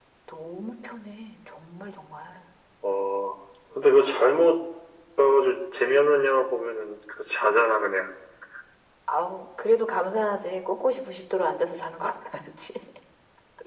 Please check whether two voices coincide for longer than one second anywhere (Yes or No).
No